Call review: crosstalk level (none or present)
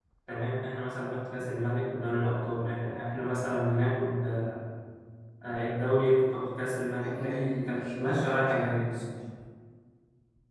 present